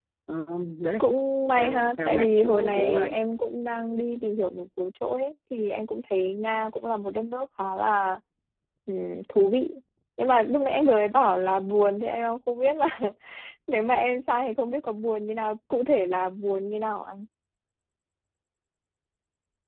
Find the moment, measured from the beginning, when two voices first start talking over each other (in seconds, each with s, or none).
1.6 s